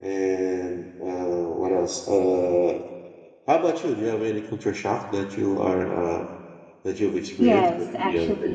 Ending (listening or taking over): taking over